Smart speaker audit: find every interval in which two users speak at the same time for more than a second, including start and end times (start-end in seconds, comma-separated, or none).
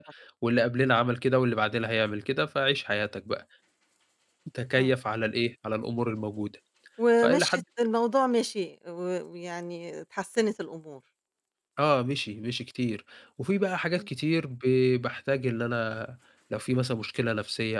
none